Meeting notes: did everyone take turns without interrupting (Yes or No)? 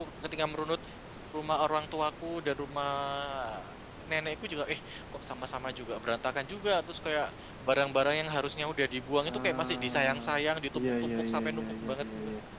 No